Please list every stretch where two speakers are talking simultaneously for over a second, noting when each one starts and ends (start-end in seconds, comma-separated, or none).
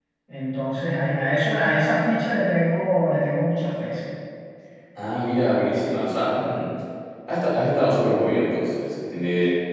none